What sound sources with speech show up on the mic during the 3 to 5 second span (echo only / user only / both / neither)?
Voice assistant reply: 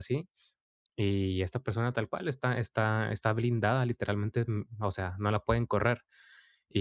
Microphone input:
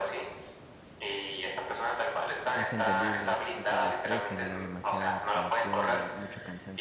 both